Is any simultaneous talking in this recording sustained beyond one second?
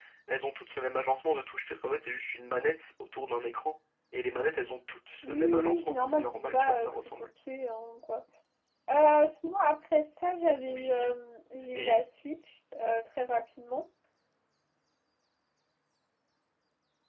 Yes, from 5.2 s

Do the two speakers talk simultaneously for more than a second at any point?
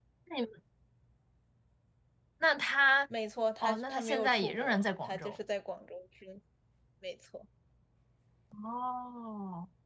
Yes, from 3.6 s

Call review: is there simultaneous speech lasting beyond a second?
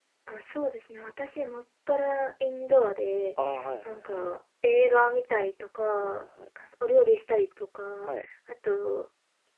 No

